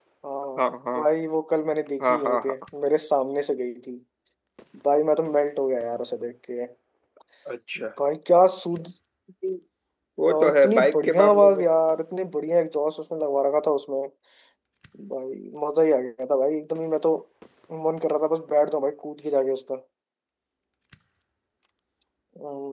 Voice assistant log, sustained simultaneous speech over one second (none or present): present